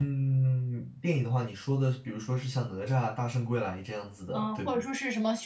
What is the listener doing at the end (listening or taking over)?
taking over